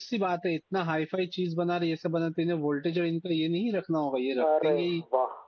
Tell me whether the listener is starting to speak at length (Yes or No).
No